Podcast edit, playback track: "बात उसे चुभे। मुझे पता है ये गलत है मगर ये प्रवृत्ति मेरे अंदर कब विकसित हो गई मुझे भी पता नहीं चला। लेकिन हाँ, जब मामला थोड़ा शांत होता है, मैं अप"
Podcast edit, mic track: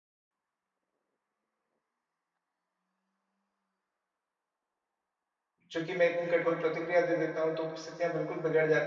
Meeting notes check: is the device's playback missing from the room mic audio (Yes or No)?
Yes